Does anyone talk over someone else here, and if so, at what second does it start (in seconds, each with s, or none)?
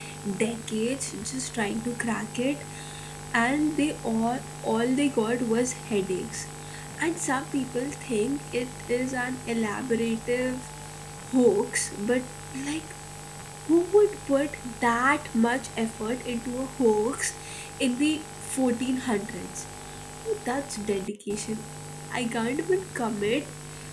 none